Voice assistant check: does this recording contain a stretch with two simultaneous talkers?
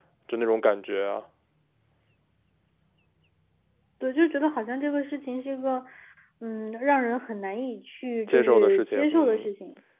Yes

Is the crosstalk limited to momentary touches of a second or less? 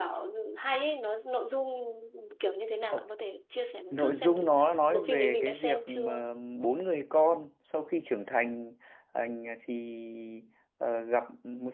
No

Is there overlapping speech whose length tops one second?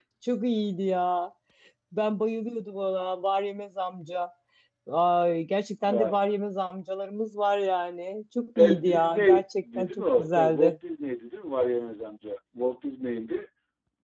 Yes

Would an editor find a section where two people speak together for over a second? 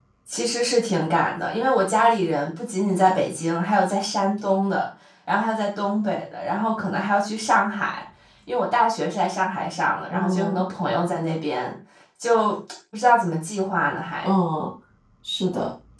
No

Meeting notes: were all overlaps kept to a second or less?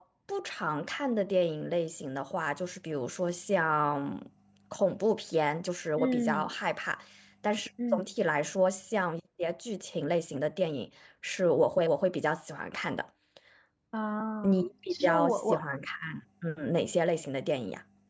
No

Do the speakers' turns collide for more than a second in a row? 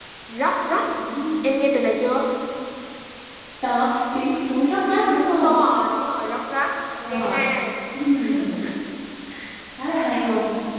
No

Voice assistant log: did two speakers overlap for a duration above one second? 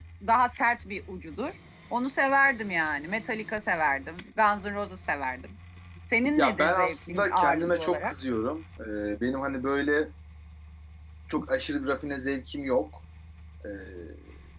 Yes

